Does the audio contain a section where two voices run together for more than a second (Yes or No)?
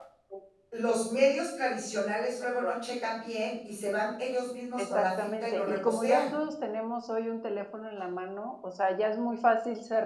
Yes